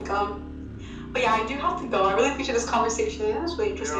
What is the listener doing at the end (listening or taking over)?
taking over